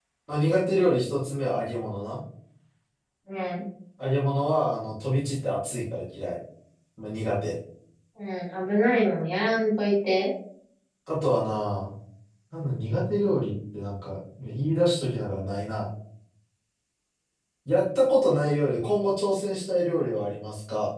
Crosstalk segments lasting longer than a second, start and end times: none

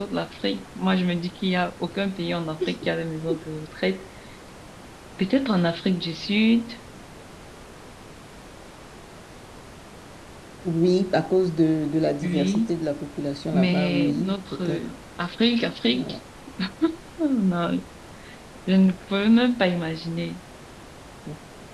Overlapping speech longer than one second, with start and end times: 13.5-14.9

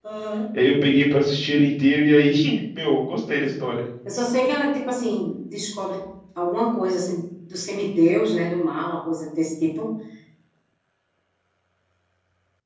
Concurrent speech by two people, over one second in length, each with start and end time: none

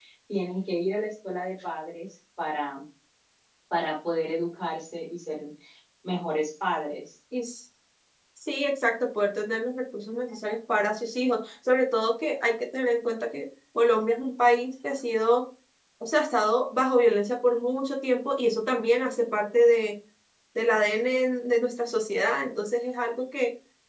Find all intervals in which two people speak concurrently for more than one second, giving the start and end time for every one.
none

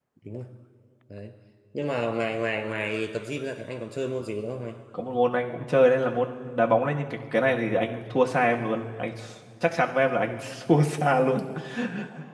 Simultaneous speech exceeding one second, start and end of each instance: none

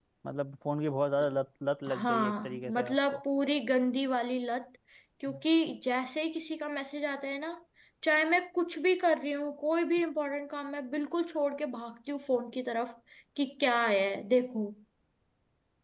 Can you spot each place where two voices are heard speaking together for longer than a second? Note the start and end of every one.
1.9-3.2

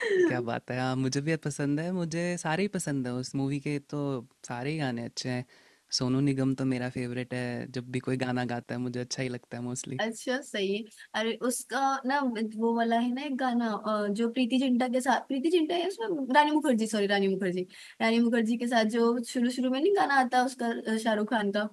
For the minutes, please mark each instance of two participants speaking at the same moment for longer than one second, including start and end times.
none

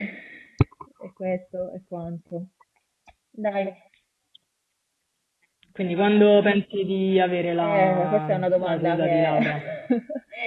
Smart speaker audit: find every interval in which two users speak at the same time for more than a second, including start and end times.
7.6-9.4

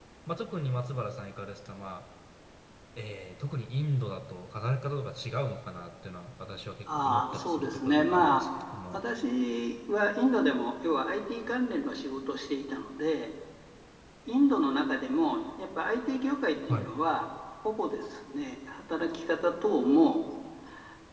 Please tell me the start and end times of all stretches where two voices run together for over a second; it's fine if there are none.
7.0-8.4

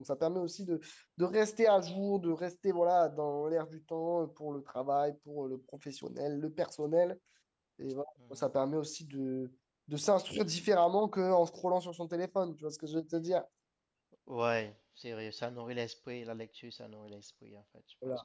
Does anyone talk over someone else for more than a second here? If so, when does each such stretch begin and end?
none

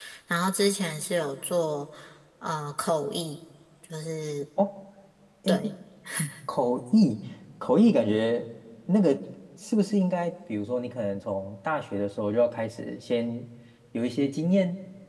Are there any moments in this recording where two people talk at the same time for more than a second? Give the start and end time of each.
none

